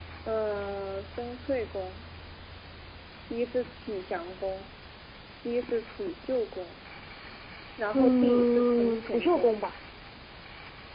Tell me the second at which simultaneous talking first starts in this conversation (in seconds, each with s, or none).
7.9 s